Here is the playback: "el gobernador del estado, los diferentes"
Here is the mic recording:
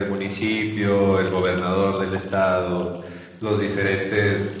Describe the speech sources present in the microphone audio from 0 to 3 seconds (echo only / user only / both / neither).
echo only